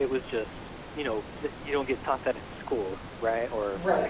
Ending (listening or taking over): taking over